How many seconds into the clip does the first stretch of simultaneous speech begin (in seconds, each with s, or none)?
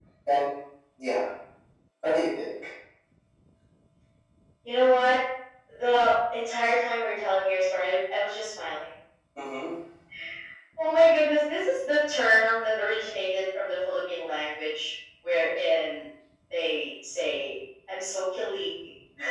none